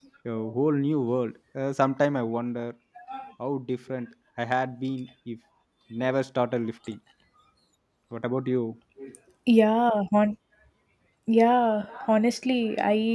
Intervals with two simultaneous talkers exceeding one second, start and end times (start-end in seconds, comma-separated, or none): none